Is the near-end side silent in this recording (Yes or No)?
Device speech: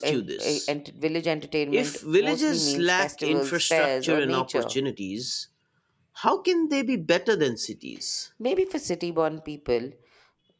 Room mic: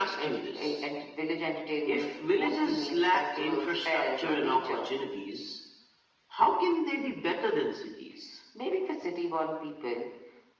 Yes